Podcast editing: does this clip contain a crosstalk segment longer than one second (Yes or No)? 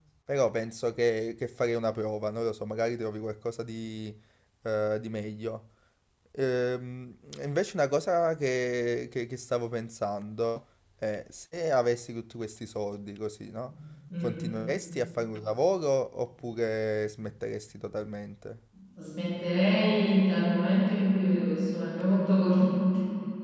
No